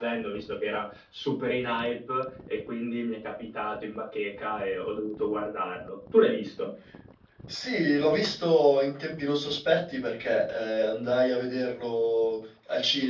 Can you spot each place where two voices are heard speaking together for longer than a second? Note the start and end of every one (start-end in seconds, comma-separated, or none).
none